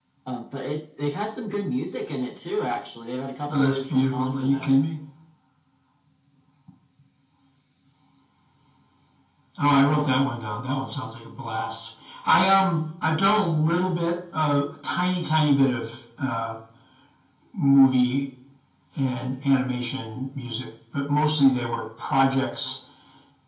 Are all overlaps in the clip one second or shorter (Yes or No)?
No